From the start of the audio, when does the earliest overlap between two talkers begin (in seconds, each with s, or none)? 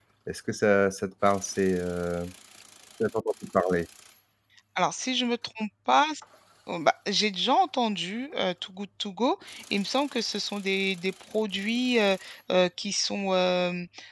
none